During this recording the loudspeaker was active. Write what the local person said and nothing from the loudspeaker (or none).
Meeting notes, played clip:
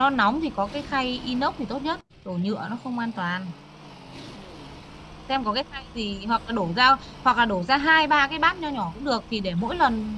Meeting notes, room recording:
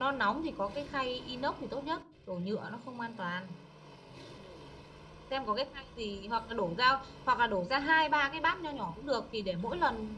none